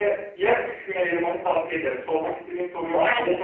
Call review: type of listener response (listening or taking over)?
taking over